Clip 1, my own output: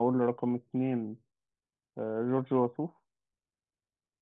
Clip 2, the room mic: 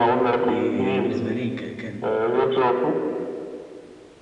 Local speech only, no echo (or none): دي, دي بالنسبة لي ك- كان